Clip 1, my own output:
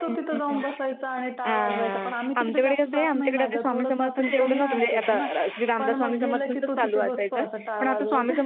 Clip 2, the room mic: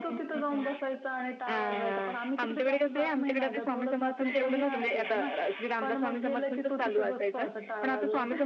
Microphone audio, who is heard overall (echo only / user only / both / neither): echo only